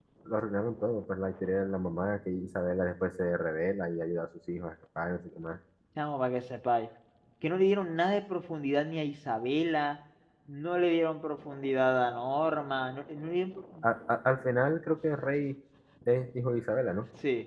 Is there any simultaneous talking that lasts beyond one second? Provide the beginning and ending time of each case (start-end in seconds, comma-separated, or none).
none